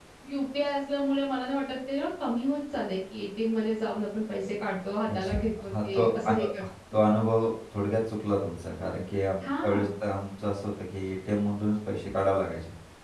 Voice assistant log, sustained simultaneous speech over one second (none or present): present